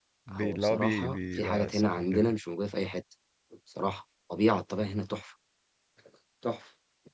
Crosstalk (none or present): present